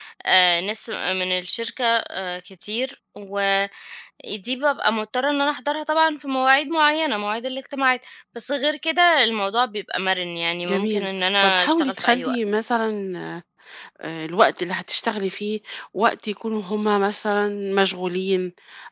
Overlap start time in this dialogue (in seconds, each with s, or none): 10.6 s